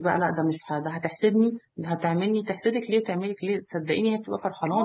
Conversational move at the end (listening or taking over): taking over